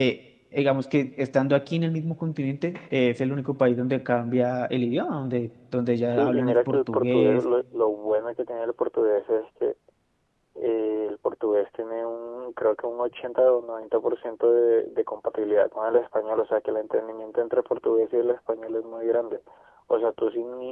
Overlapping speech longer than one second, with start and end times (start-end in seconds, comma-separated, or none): 6.1-7.4